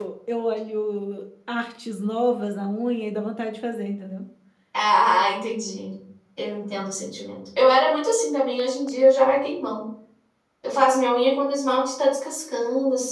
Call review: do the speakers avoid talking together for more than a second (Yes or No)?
Yes